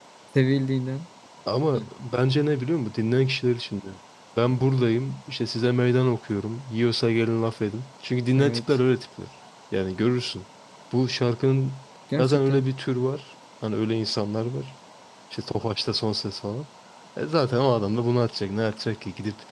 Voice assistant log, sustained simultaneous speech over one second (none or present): none